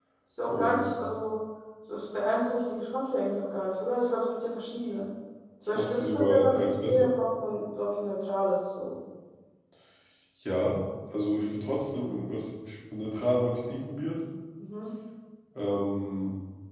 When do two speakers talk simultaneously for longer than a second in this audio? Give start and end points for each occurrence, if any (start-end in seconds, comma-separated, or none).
5.8-7.1